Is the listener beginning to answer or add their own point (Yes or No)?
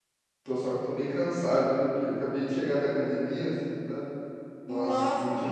No